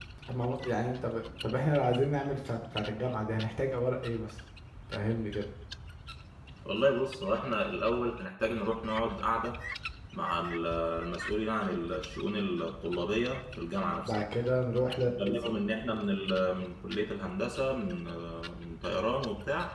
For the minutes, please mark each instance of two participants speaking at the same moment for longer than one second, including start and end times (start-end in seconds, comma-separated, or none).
none